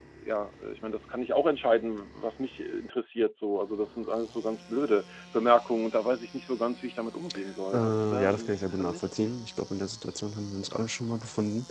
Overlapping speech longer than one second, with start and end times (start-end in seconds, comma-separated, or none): 7.7-9.0